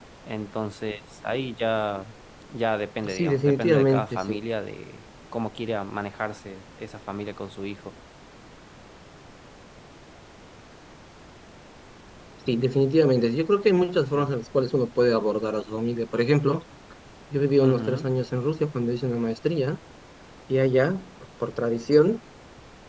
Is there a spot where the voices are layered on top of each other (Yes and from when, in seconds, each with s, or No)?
Yes, from 3.1 s